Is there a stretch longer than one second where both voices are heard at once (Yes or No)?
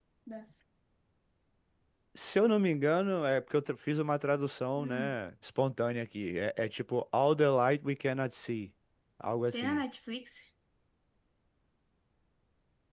No